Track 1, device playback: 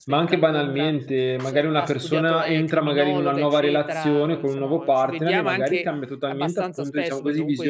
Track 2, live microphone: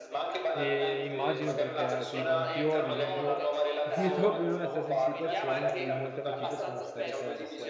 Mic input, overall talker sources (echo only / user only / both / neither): both